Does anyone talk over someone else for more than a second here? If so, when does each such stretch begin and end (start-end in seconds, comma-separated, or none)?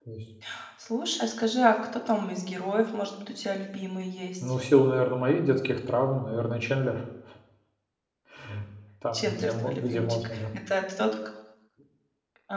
9.1-10.4